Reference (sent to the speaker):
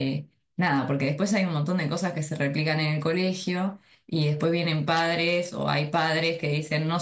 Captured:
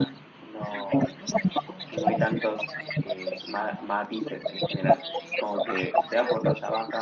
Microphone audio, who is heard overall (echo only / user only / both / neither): both